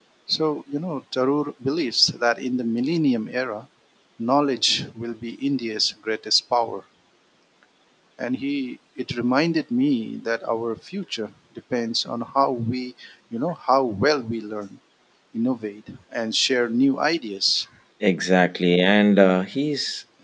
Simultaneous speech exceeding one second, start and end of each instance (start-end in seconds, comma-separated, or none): none